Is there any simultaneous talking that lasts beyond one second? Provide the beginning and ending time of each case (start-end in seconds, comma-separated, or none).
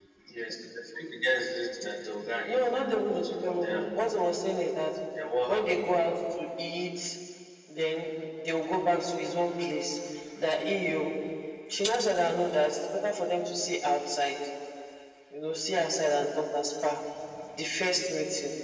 2.5-4.1